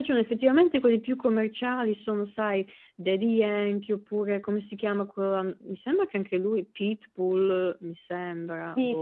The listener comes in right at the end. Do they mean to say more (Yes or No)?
Yes